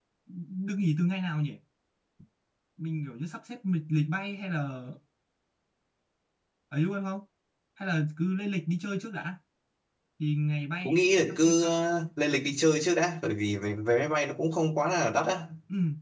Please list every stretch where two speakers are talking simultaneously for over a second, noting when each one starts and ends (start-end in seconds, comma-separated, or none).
none